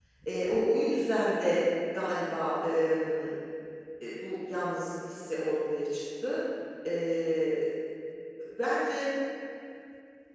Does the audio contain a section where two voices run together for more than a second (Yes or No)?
No